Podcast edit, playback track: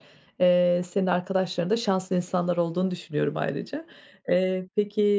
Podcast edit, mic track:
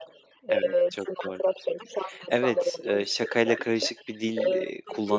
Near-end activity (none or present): present